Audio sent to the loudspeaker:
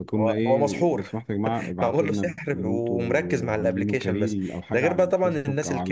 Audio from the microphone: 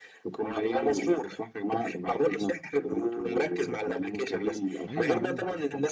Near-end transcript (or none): أيوه أيوه